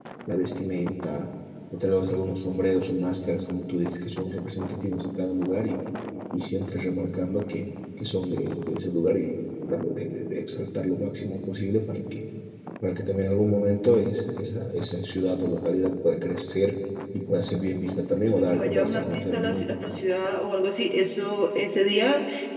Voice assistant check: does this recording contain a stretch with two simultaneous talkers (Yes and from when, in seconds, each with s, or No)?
Yes, from 18.3 s